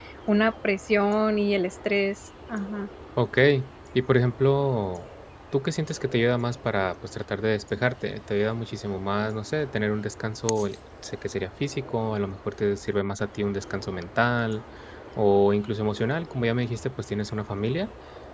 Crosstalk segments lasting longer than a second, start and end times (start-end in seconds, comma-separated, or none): none